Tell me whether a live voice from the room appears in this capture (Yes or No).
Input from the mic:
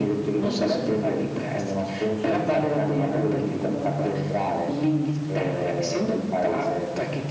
No